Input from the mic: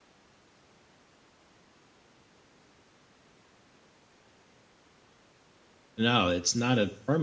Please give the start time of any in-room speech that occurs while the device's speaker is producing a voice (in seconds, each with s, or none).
6.0 s